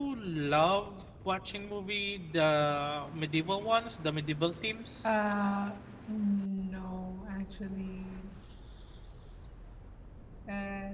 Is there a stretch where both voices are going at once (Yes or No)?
No